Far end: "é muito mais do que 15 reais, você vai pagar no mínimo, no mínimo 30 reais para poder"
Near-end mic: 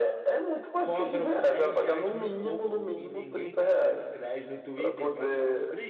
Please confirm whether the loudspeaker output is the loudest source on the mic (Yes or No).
Yes